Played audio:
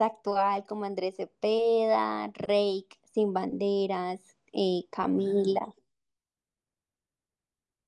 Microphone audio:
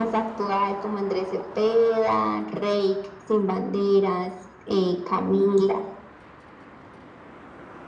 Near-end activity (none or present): none